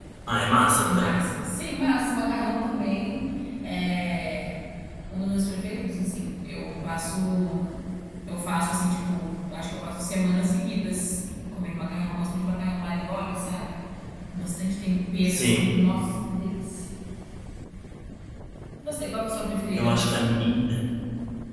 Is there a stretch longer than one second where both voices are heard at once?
No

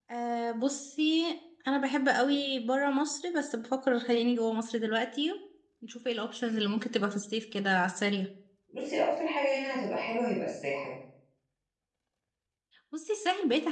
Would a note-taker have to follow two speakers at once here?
No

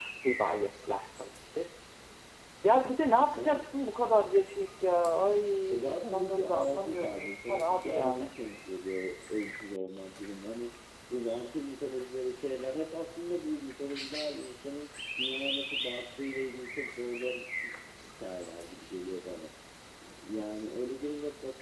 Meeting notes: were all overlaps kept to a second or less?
No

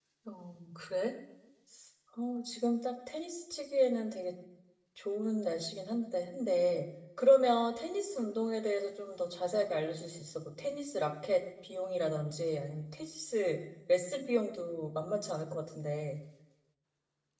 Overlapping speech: No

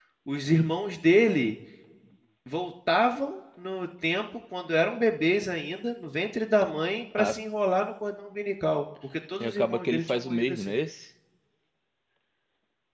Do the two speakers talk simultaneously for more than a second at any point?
Yes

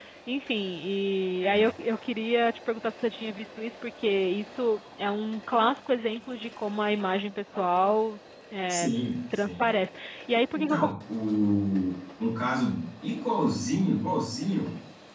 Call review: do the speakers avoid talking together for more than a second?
Yes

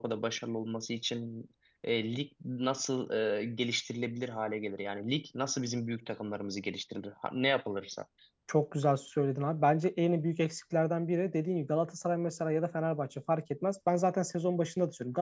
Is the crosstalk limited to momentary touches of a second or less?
Yes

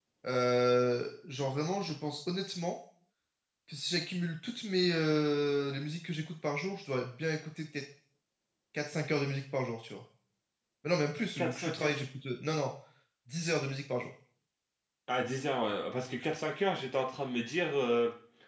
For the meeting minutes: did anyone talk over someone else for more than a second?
No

